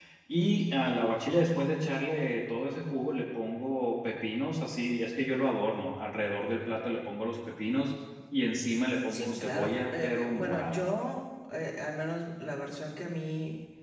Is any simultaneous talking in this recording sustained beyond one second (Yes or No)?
Yes